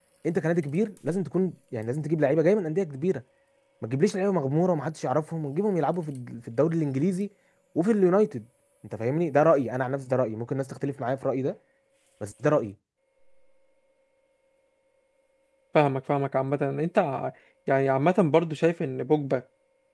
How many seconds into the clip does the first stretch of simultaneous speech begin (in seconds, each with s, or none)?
none